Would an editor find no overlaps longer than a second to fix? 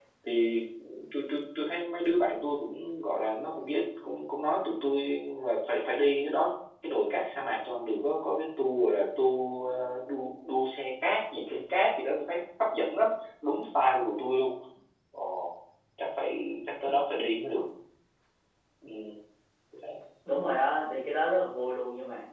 Yes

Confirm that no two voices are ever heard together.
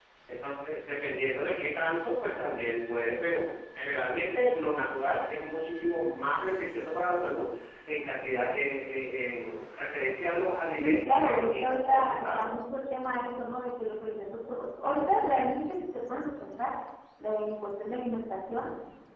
No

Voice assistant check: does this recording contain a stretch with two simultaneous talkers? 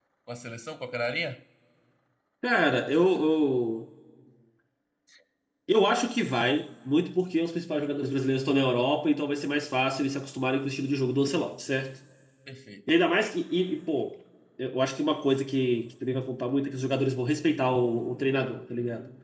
No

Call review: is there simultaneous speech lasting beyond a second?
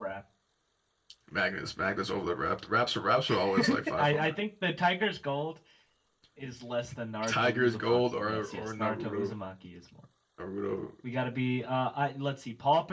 Yes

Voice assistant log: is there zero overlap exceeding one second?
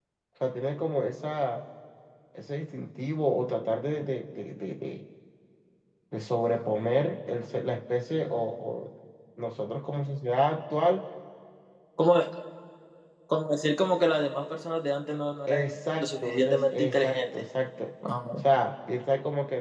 No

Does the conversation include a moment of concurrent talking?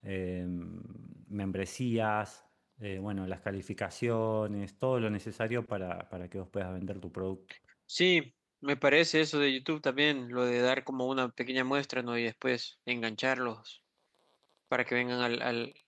No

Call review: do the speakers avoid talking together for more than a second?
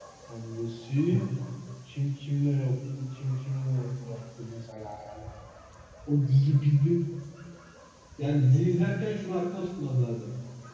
Yes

